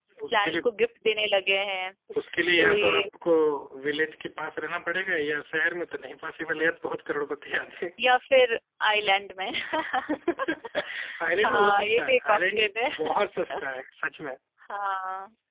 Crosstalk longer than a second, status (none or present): present